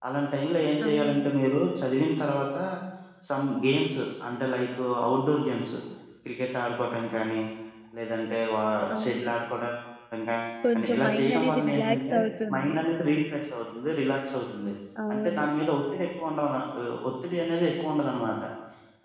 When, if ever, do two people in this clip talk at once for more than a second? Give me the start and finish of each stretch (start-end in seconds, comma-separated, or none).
10.7-12.1